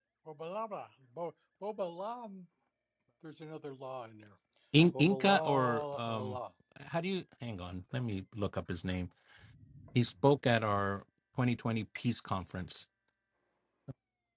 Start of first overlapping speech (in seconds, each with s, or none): 5.0 s